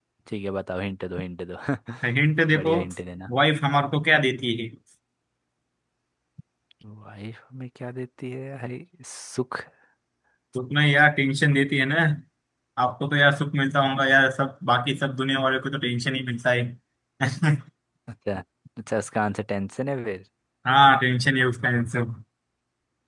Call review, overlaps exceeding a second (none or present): none